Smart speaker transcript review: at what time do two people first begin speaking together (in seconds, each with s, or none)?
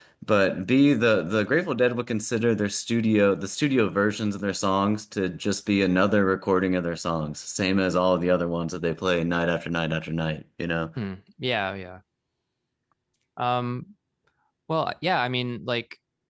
none